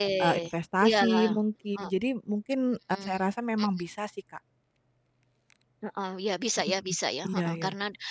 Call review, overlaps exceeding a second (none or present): none